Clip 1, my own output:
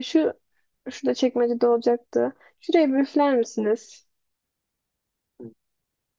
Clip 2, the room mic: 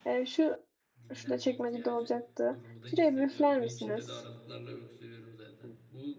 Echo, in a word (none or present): present